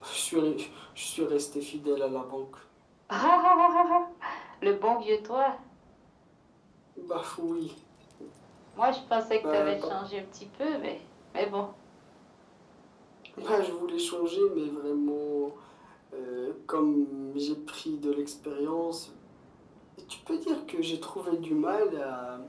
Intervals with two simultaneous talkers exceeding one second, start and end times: none

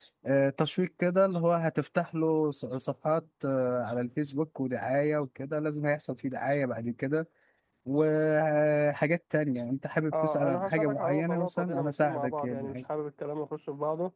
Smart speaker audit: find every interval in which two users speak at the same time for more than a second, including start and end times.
10.1-12.8

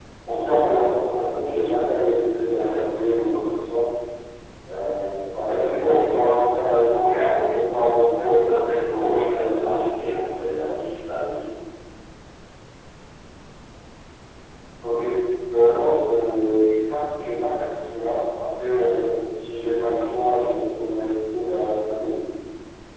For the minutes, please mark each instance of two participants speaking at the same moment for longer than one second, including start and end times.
8.3-9.8

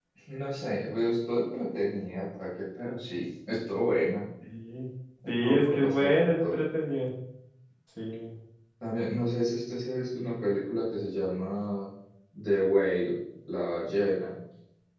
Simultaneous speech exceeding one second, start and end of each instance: 5.3-6.5

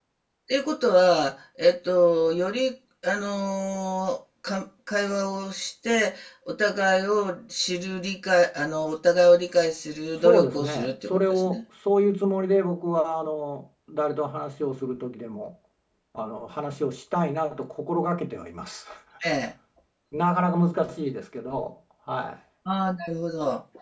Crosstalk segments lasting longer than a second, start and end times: 10.2-11.6

